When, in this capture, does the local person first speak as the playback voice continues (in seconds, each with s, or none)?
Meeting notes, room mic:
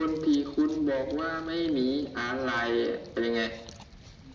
none